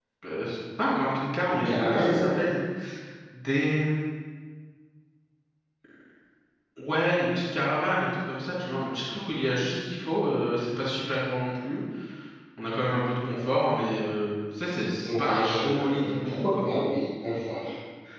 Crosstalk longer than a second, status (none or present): present